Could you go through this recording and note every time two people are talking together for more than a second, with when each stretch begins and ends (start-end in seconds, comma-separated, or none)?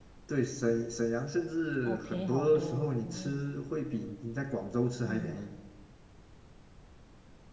1.9-3.4